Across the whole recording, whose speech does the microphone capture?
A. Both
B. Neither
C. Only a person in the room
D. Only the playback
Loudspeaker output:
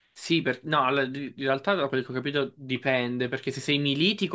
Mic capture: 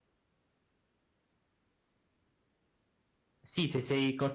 C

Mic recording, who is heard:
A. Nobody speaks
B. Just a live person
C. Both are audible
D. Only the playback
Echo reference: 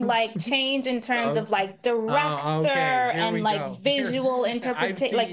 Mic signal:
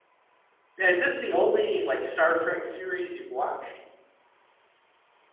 B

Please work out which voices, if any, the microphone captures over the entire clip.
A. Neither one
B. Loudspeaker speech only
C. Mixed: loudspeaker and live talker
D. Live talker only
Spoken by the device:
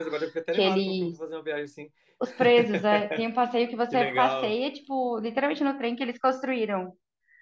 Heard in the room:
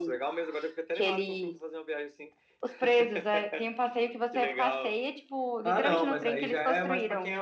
C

